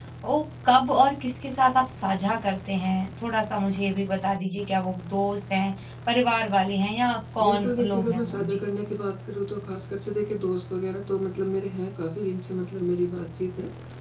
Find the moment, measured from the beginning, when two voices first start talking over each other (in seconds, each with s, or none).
7.4 s